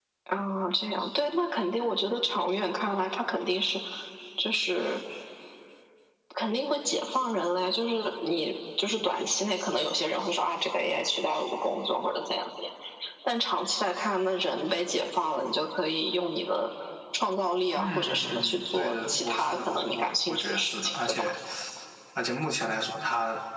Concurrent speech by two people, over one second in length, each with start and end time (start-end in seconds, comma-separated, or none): 17.8-21.2